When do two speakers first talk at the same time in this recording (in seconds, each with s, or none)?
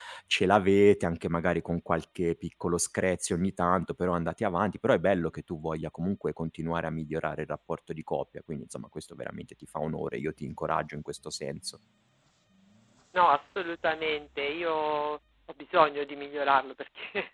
none